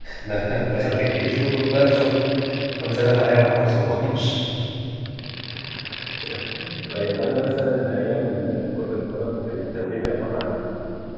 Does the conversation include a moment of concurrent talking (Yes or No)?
No